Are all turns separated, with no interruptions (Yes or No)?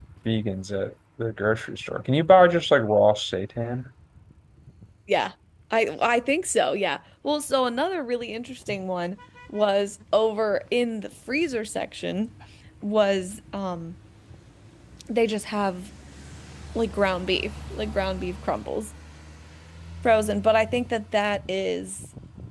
Yes